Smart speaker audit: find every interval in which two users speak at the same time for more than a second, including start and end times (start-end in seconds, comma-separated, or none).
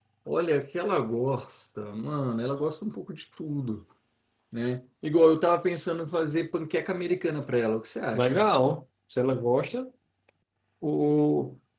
none